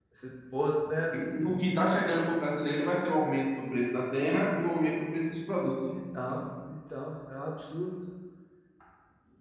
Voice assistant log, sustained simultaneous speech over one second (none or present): none